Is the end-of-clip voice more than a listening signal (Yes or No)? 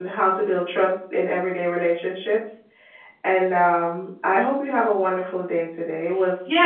Yes